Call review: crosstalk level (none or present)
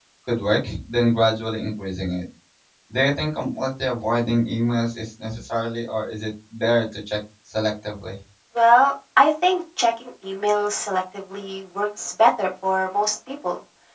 none